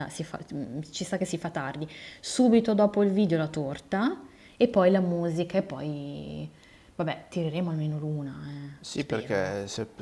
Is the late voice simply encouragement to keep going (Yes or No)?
No